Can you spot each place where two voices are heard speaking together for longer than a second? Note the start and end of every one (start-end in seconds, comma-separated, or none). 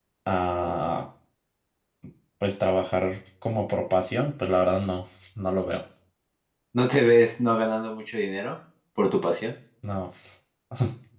none